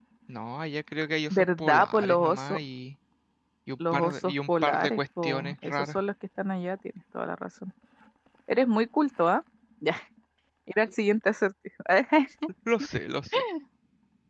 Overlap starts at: 1.3 s

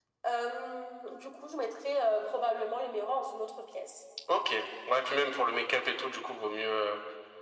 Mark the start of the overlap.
none

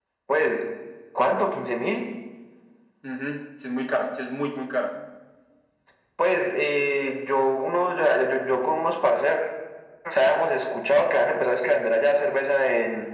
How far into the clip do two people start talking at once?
none

